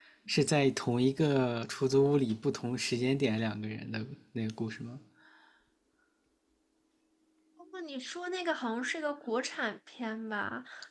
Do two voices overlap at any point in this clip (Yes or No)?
No